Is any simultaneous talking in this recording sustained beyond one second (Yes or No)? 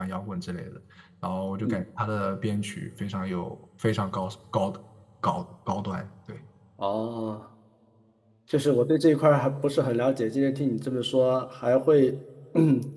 No